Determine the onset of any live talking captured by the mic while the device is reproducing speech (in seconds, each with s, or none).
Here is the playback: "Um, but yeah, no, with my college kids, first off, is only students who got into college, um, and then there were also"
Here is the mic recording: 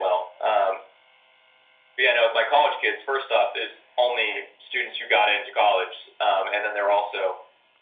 none